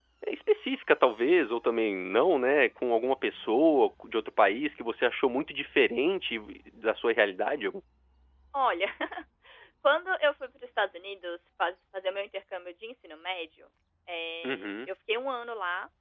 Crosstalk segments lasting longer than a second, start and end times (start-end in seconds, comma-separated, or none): none